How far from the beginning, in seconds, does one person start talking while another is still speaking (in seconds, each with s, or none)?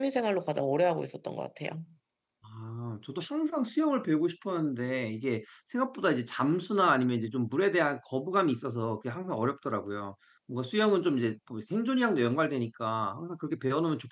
none